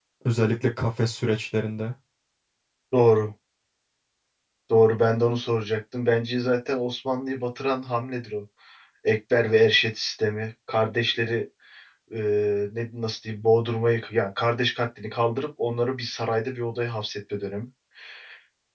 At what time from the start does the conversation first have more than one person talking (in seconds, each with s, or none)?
none